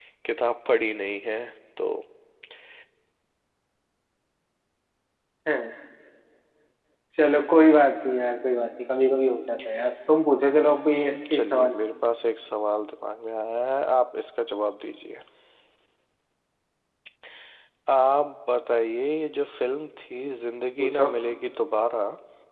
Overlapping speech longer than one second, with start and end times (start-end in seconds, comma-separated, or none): 10.5-11.7